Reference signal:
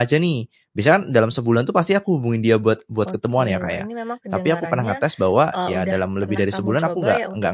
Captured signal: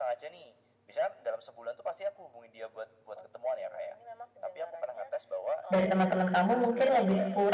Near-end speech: present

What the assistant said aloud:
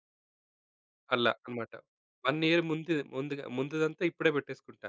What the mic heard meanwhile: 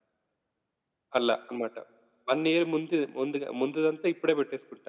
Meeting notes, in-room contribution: none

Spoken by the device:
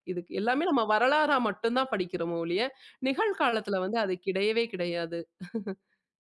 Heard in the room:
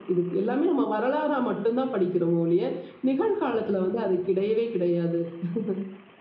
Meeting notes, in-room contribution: none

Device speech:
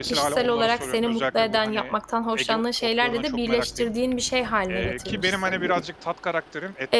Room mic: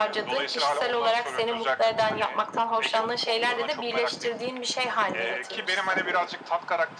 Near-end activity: none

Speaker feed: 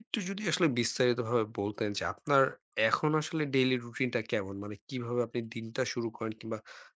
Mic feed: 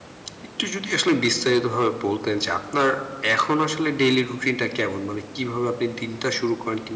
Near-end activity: none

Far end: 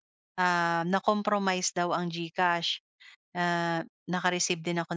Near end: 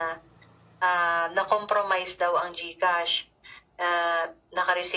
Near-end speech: none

